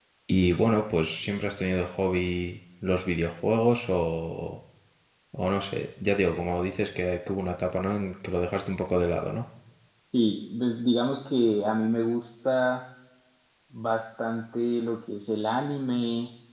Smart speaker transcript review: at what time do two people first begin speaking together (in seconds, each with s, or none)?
none